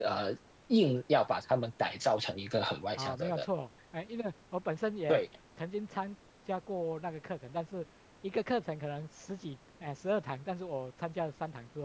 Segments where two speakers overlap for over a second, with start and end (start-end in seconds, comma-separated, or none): none